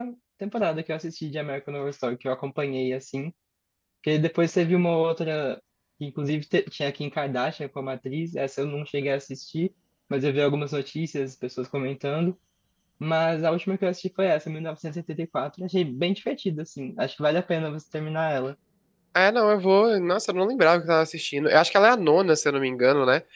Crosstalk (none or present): none